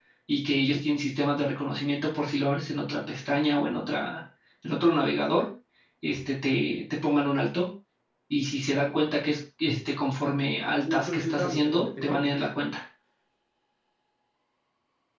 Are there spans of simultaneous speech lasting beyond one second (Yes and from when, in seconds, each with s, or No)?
Yes, from 10.8 s